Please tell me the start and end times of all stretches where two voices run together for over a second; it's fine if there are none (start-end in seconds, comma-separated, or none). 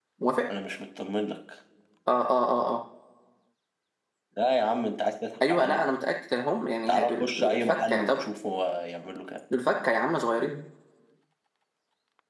6.9-8.3